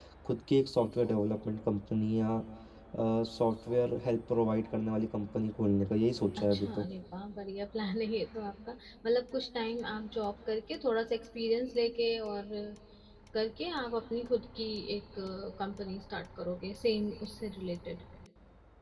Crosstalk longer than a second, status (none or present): none